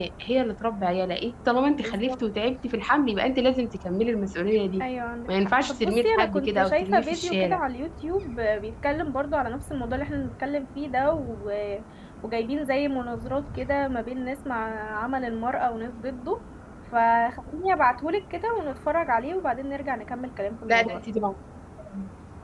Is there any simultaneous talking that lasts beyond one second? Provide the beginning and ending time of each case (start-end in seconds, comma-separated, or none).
5.3-7.6